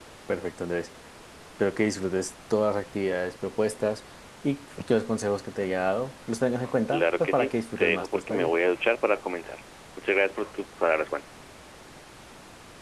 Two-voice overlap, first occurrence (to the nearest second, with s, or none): 7 s